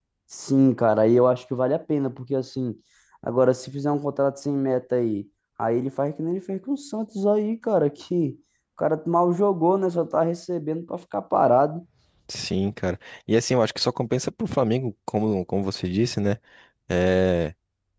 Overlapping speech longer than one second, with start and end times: none

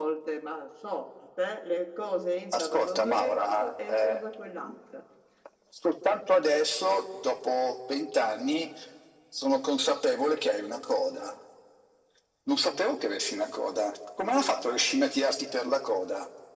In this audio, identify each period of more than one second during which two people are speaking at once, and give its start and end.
2.5-4.2

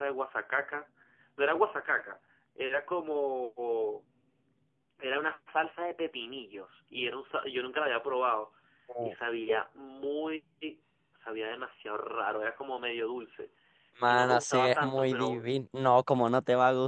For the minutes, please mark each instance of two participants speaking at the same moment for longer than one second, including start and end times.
14.0-15.5

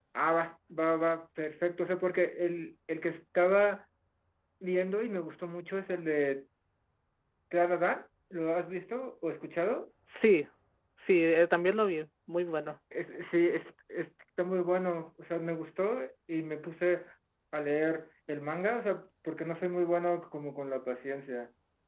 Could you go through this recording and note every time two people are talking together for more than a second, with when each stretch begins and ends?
none

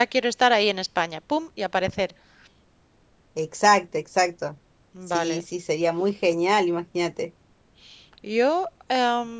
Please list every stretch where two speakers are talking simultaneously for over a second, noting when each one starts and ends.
none

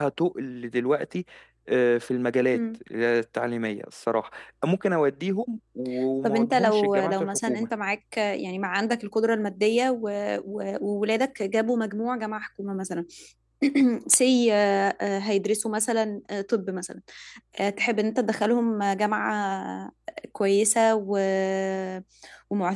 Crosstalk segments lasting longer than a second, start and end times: 6.2-7.7

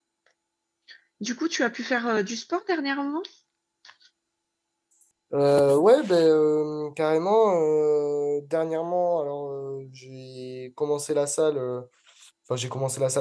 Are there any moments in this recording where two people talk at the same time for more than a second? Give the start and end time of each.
none

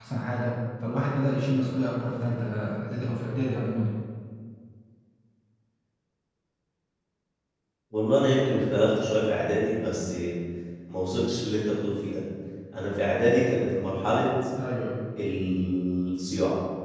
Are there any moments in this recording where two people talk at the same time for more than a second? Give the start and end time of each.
none

